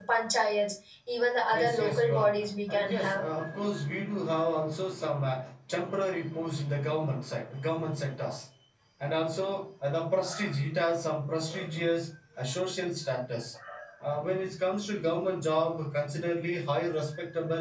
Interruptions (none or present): present